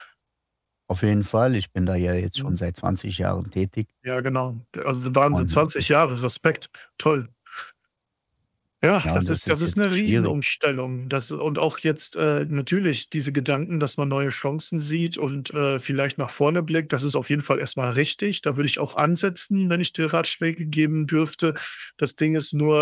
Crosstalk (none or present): present